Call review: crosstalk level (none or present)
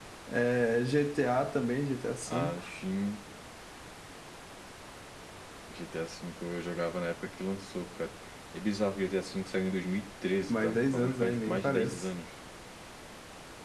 present